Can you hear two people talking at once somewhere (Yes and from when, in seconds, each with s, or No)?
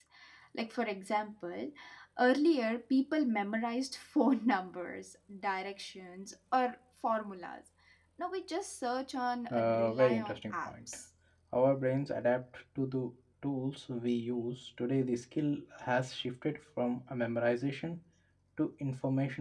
Yes, from 9.5 s